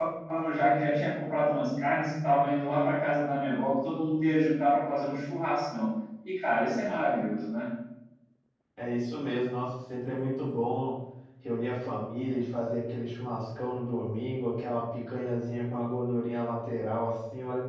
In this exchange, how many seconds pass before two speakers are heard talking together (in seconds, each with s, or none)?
none